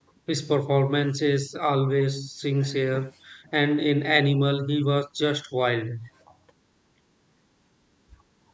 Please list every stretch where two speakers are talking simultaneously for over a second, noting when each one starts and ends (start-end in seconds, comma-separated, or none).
none